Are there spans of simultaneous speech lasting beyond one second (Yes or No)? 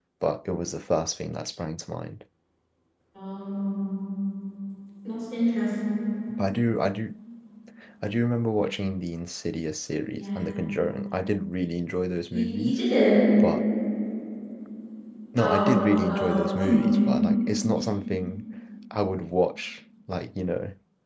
Yes